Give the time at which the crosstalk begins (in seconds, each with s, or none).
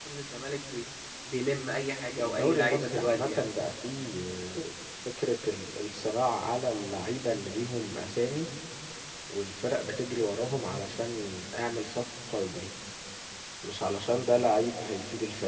2.2 s